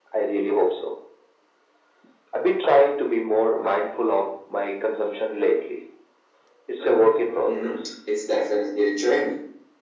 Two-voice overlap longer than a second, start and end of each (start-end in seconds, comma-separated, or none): none